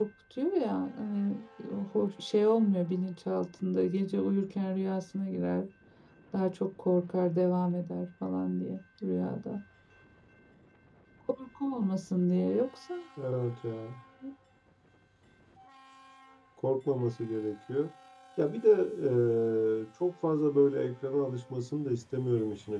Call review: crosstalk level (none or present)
none